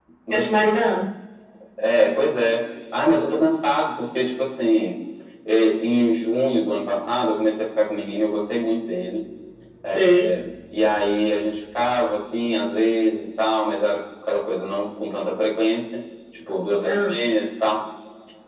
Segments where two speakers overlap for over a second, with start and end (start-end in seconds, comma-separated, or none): none